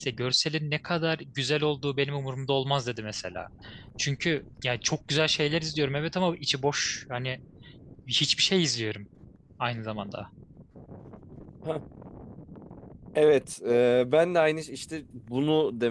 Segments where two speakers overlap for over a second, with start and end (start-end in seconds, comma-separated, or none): none